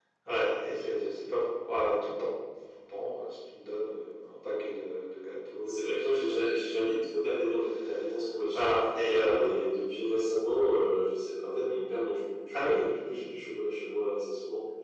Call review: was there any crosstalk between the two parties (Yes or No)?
Yes